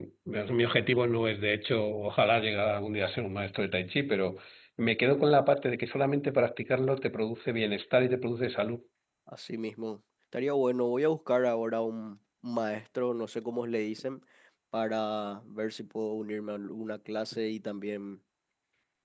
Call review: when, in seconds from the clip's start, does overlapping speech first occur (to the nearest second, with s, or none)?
none